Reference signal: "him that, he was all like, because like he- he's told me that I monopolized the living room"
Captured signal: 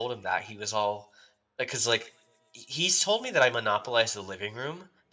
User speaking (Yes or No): No